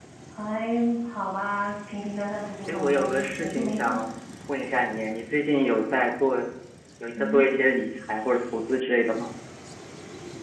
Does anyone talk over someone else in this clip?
Yes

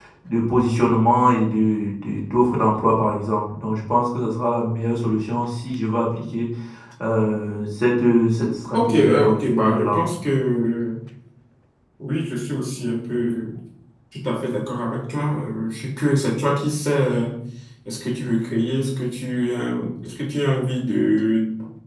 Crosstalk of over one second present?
Yes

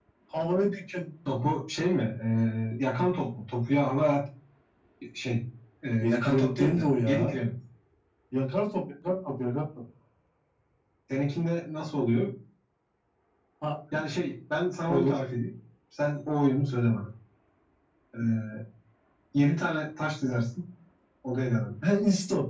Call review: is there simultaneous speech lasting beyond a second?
Yes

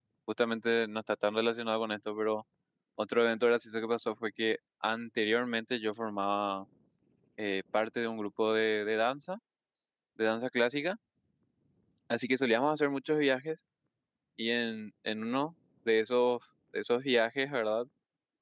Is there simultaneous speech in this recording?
No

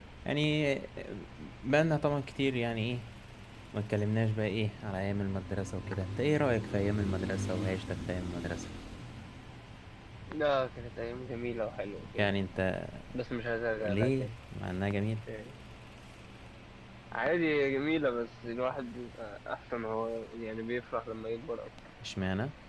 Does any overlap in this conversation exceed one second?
No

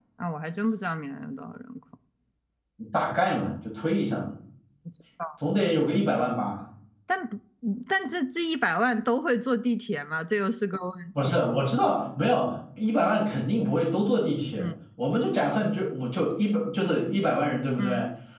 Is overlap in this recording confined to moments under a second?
Yes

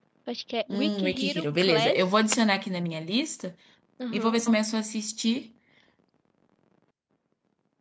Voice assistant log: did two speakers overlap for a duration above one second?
Yes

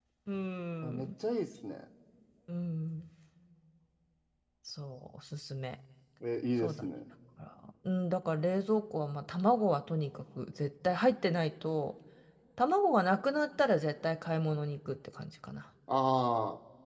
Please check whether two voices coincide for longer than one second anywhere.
No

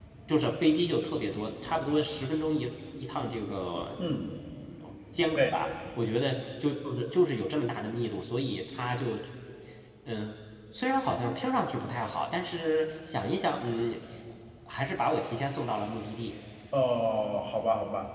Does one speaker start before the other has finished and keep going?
No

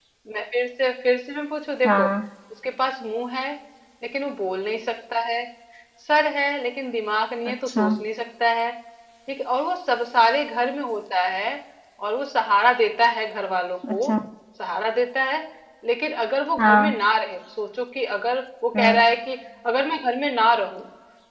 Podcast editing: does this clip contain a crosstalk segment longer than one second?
No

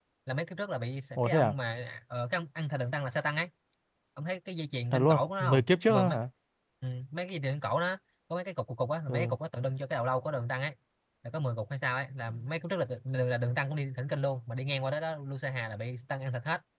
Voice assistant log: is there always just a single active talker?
No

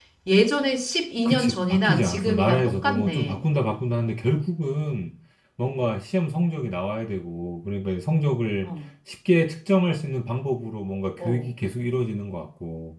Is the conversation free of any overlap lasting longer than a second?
No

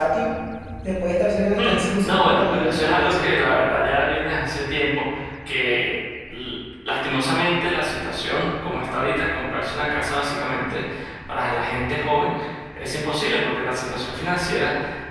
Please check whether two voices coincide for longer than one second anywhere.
Yes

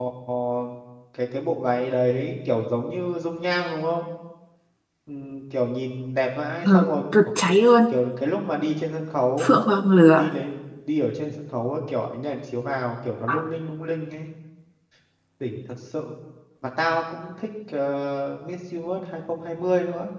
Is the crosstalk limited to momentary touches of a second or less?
Yes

